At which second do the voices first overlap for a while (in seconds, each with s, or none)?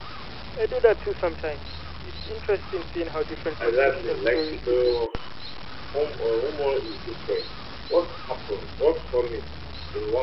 3.6 s